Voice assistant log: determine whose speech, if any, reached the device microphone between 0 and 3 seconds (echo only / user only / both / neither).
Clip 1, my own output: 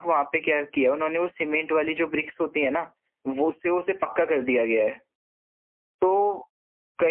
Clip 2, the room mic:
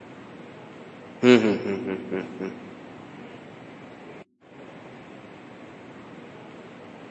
user only